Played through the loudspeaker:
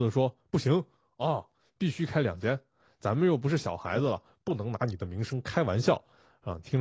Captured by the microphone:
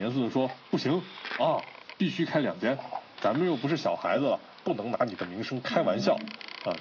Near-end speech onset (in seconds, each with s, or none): 5.7 s